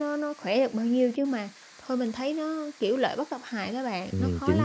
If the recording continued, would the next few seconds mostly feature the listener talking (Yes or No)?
Yes